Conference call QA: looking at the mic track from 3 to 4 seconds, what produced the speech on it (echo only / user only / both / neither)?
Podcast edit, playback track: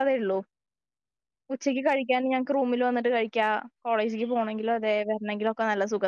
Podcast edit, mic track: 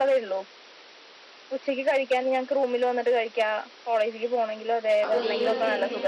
echo only